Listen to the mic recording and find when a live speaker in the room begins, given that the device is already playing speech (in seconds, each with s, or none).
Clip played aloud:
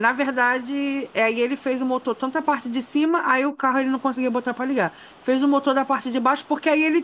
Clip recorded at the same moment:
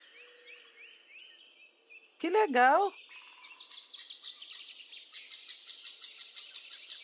2.2 s